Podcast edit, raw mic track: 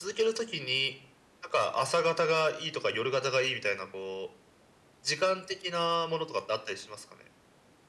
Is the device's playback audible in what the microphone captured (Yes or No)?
Yes